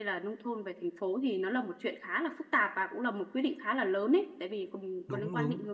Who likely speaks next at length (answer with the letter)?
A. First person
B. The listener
A